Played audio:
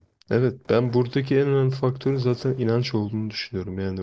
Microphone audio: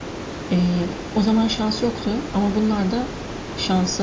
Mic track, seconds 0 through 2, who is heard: user only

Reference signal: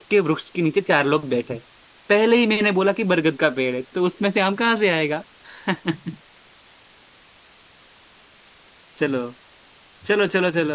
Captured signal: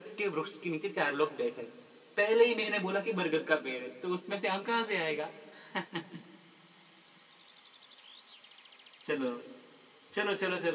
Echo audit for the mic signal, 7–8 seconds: neither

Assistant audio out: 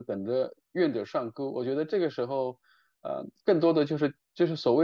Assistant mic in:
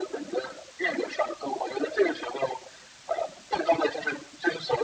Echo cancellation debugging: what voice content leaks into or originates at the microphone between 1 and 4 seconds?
echo only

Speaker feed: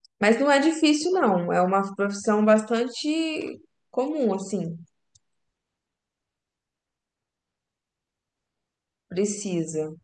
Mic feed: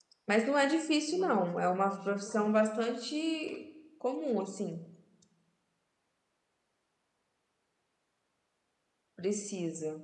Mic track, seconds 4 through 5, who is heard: echo only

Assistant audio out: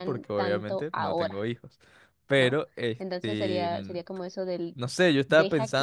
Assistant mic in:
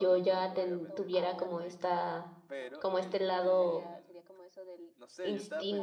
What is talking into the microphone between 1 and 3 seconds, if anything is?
both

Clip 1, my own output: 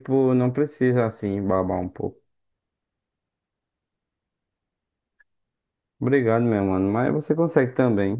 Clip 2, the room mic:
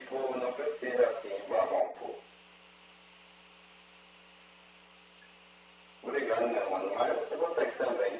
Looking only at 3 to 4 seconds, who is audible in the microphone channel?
neither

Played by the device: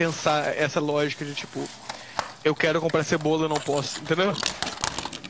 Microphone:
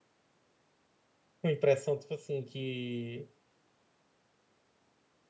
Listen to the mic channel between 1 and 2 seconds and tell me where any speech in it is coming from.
user only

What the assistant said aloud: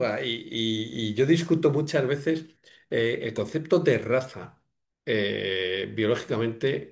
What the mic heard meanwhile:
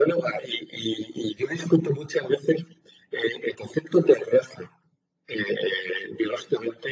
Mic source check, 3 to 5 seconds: echo only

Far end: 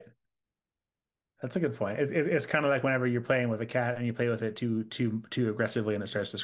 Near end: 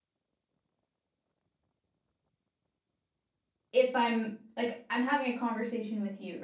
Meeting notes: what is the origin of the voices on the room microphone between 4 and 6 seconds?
user only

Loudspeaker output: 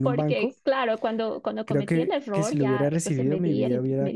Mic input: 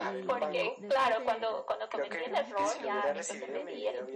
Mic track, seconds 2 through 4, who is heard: both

